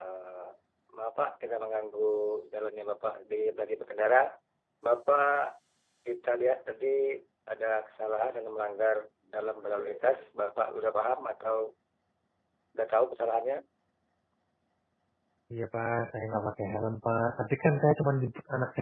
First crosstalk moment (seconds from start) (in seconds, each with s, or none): none